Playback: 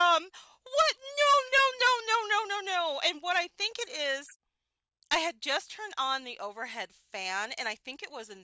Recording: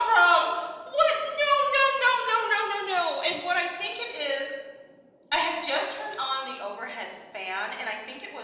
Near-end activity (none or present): none